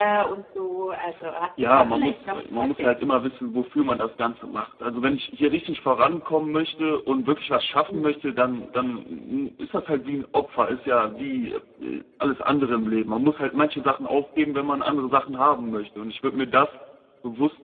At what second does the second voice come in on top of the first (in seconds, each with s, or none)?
1.6 s